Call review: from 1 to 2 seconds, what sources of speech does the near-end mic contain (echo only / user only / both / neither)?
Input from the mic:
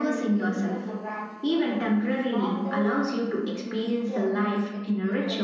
echo only